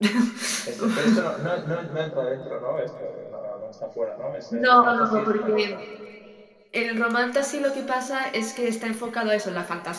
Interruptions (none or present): present